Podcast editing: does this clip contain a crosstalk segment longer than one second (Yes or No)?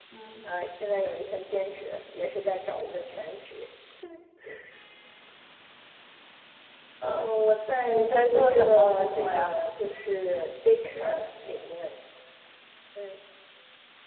Yes